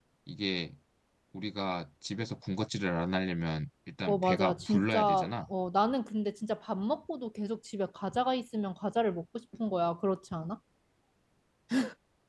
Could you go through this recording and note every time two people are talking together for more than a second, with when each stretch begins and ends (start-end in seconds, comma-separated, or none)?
4.1-5.3